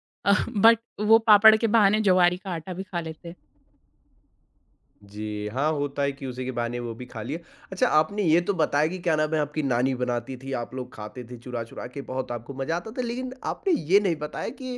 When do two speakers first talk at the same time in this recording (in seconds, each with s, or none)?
none